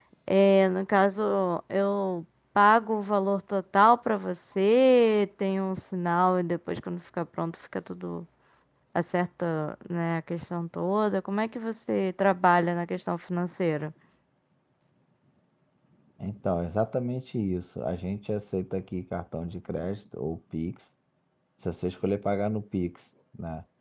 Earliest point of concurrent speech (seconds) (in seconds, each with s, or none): none